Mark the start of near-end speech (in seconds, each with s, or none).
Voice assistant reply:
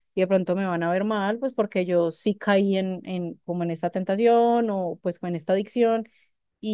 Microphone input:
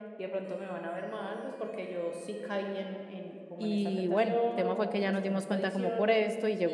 3.6 s